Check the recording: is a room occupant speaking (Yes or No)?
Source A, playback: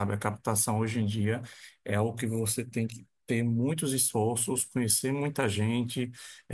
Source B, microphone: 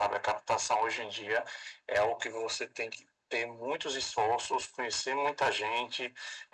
No